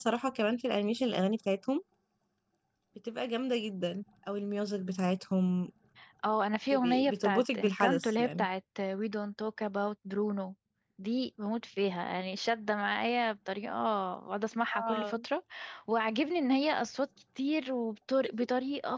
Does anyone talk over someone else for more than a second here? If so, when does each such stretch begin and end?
6.7-8.5

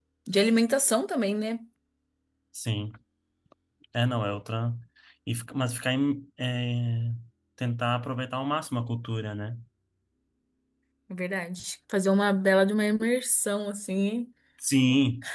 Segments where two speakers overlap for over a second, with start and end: none

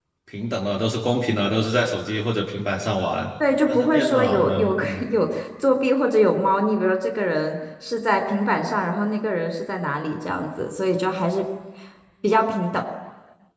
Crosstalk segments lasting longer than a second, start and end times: 3.7-5.0

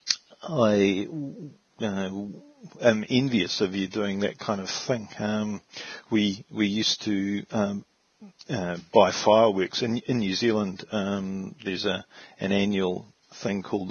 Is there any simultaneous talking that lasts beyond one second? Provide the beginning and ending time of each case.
none

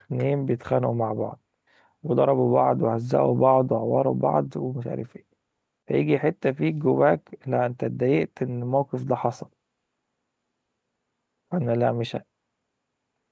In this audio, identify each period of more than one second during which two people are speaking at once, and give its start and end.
none

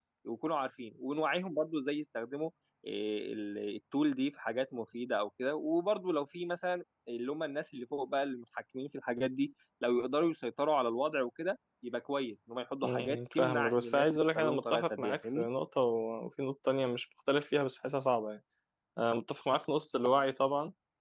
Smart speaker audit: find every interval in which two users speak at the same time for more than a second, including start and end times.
12.8-15.5

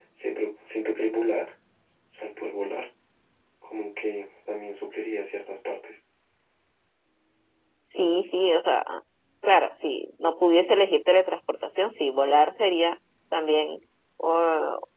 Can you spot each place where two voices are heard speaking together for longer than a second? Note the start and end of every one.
none

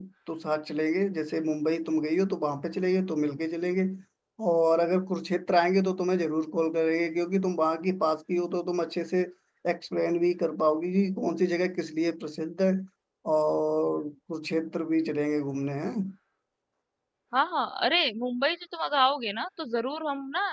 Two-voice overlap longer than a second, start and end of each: none

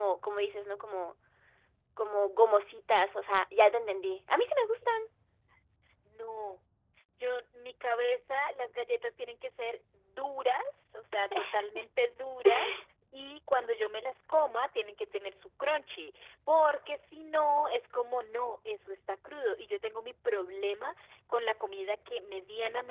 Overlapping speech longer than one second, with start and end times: none

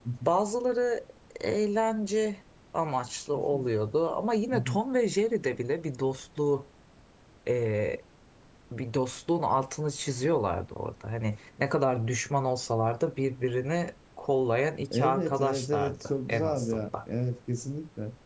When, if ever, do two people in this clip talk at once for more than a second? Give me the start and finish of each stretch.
14.9-16.9

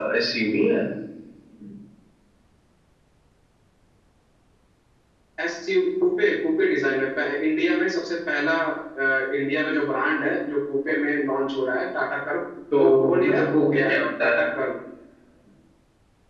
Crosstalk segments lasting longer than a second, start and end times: 12.8-14.4

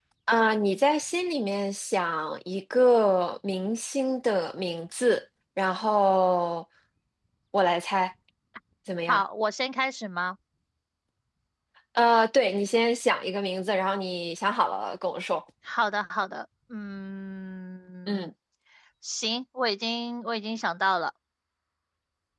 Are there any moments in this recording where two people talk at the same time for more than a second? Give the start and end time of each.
none

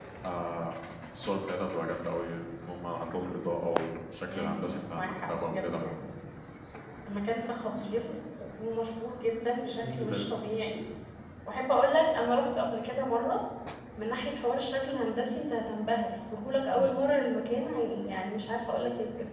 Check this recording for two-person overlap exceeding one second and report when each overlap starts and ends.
4.3-5.8

